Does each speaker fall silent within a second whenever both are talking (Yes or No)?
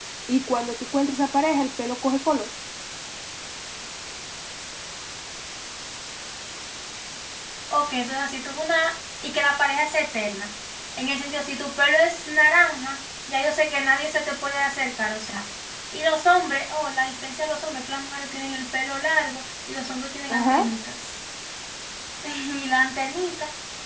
Yes